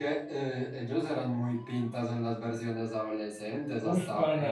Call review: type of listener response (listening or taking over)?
taking over